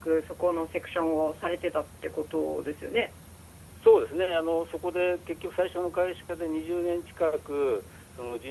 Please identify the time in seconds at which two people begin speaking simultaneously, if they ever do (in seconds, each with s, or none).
none